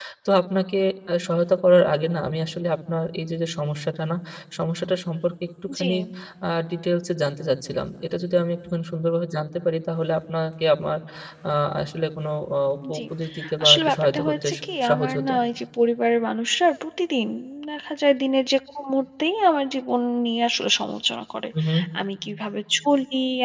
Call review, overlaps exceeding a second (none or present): present